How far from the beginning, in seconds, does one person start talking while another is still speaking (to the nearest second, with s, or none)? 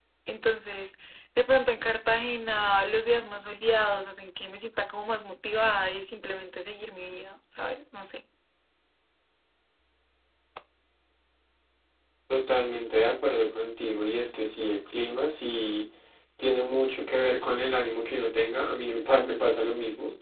none